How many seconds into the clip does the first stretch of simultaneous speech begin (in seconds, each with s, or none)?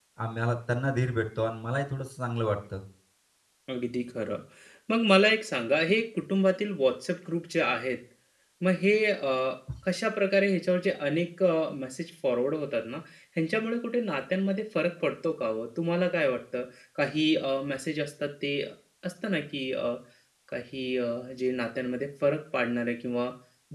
none